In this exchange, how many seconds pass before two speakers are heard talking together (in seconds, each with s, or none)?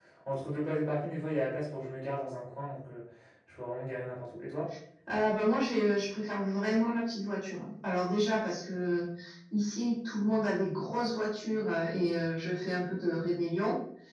none